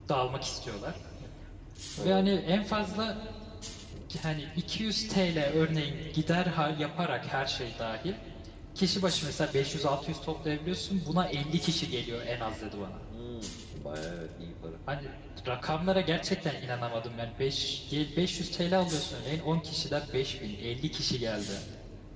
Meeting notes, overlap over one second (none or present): none